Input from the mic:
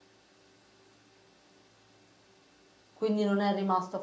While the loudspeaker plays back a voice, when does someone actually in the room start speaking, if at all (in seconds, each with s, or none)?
2.9 s